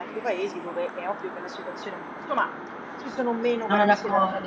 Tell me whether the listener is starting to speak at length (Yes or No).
Yes